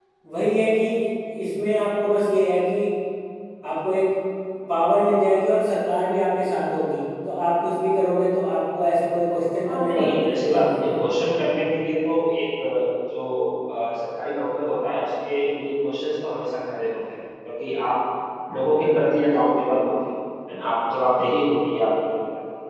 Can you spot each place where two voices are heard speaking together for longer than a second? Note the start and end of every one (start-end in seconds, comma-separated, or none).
9.7-10.9